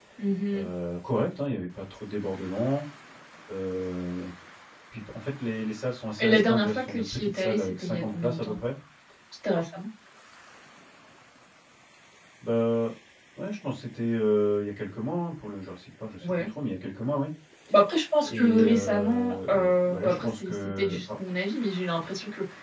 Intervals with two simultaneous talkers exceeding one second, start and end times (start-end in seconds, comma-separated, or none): 6.2-8.6, 18.2-21.0